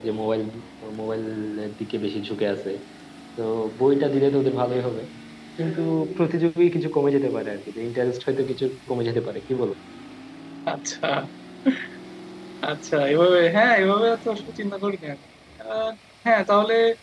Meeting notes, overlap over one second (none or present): none